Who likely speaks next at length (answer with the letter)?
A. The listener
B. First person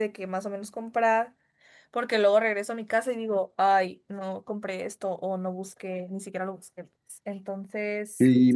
A